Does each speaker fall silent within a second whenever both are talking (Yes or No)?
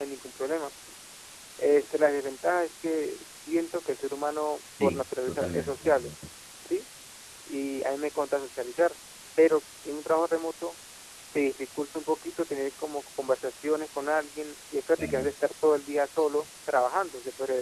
No